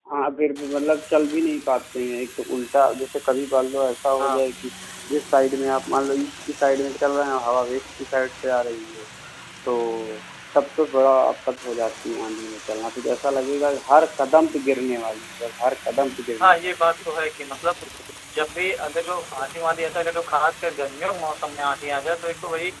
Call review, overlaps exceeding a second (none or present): none